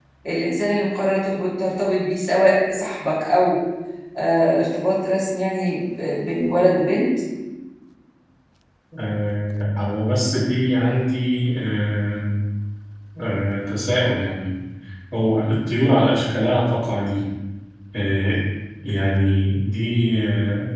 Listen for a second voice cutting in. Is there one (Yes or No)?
No